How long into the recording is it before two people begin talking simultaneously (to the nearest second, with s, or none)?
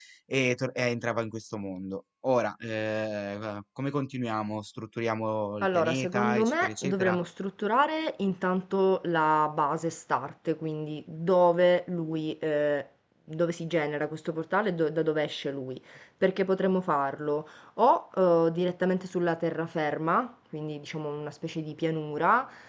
6 s